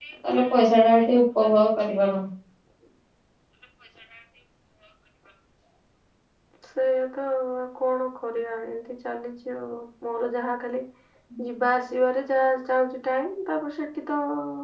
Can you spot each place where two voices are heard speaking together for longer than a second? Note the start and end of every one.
none

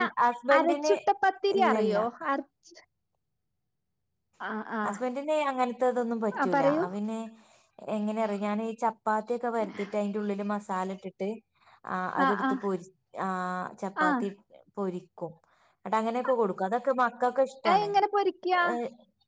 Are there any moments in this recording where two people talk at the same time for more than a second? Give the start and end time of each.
none

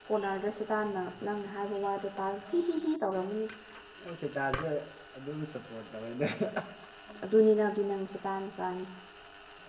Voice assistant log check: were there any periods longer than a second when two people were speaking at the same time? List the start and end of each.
none

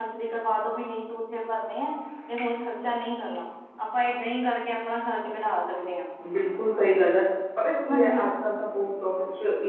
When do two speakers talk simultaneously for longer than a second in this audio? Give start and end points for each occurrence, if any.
none

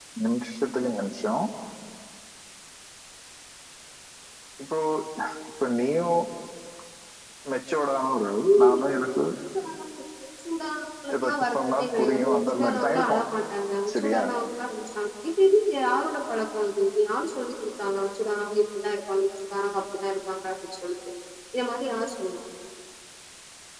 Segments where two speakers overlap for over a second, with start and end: 11.2-13.2

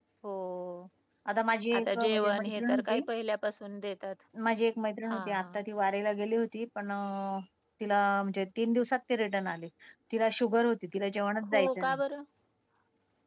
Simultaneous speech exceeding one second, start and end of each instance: 1.8-3.0

